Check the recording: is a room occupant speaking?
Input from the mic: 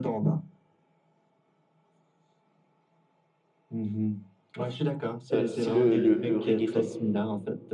Yes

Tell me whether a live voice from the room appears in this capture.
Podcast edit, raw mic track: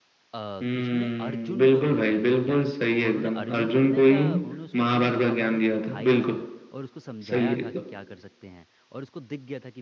Yes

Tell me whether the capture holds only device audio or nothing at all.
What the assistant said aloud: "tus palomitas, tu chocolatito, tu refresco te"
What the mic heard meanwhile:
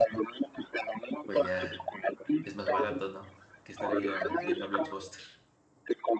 No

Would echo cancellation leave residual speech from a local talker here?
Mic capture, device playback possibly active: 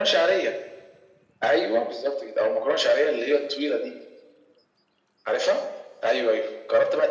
No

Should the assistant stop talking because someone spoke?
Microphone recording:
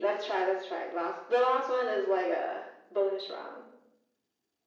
No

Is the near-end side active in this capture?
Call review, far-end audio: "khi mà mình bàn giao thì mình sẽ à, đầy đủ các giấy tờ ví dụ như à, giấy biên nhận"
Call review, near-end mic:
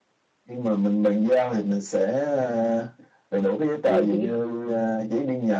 Yes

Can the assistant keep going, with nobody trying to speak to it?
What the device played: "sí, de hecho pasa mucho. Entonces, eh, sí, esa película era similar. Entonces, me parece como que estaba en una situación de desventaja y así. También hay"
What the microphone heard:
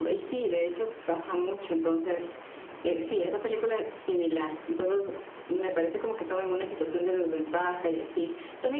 Yes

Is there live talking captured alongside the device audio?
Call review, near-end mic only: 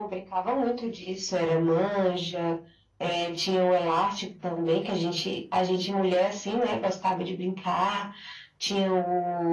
No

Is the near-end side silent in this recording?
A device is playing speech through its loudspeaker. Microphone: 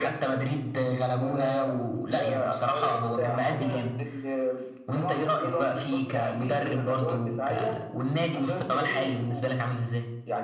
Yes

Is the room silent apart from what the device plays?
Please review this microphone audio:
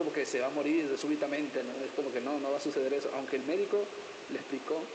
Yes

